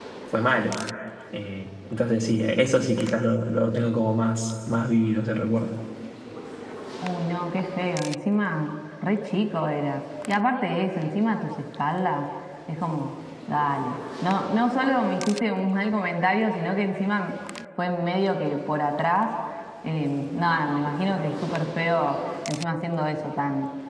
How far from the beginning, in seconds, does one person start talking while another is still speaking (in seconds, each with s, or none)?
none